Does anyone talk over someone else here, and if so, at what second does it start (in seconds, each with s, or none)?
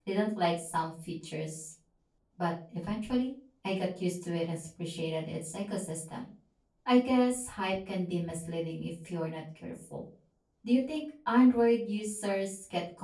none